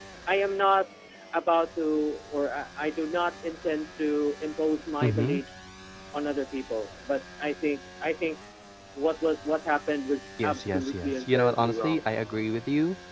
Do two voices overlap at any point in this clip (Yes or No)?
Yes